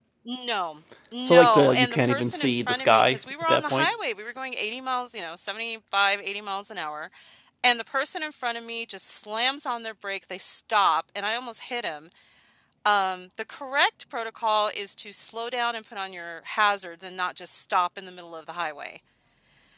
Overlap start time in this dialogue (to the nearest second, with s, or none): 1 s